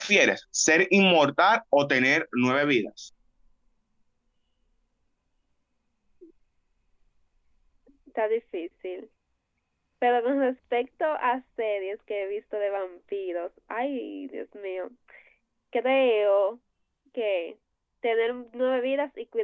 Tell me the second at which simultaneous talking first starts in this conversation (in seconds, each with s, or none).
none